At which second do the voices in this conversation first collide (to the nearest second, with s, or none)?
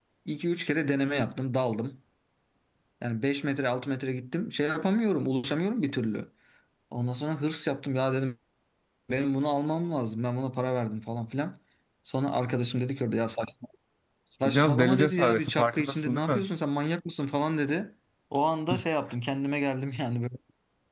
14 s